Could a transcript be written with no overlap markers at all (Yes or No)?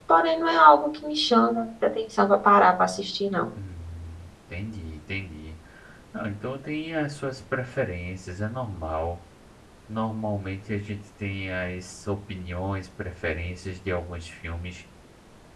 Yes